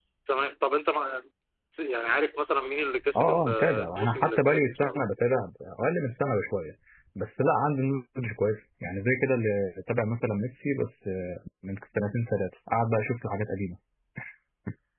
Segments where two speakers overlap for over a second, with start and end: 3.2-5.0

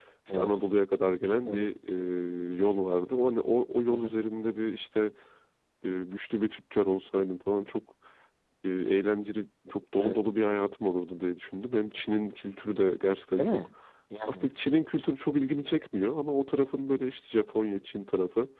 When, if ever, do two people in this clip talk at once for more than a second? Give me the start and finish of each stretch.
none

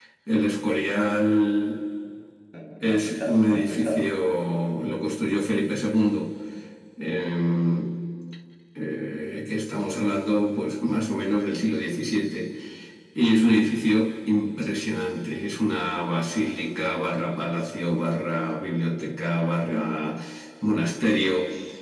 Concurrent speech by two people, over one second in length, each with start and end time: 2.8-4.1

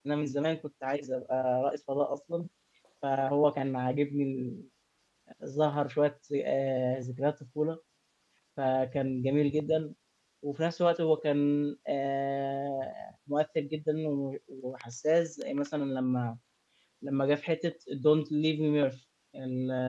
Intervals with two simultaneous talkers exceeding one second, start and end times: none

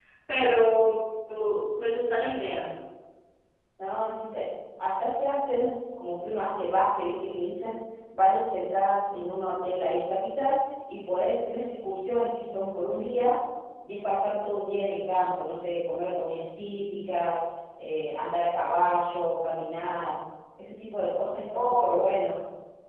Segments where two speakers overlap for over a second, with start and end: none

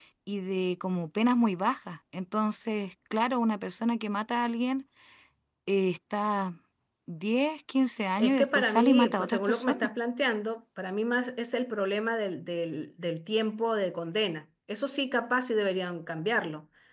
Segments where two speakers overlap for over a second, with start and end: 8.2-9.9

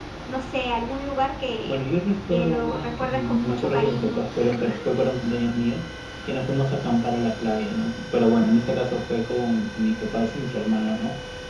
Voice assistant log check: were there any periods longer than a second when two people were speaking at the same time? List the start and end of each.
2.3-4.2

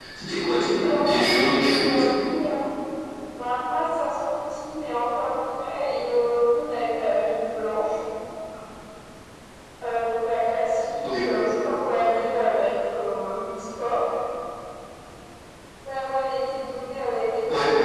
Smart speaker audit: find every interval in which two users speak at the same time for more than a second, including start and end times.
0.8-2.1

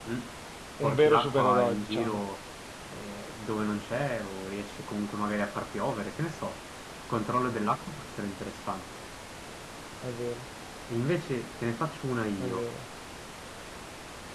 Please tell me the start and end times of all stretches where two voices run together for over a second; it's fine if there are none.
0.8-2.2

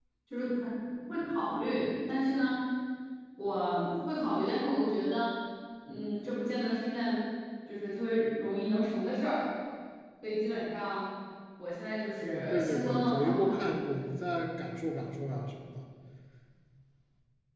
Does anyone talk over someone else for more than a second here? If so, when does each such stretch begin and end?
12.2-13.5

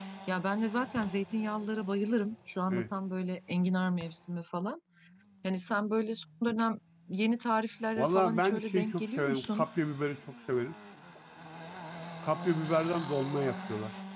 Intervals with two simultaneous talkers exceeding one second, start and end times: 8.0-9.6

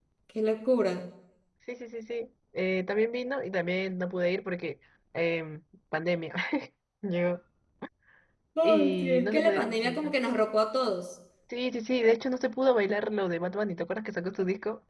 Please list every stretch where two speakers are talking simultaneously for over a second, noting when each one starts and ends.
8.6-10.1

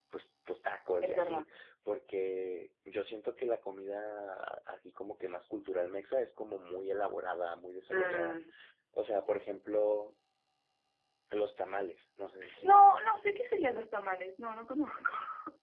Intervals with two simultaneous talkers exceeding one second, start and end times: none

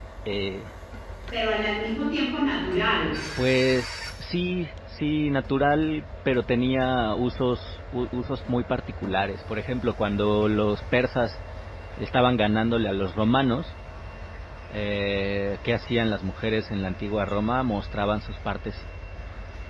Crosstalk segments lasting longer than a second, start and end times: none

